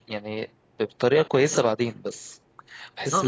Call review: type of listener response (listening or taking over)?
taking over